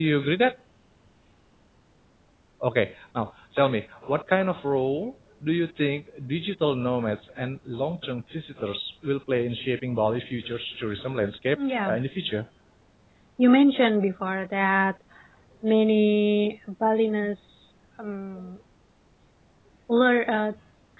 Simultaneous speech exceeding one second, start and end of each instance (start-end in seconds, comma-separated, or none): none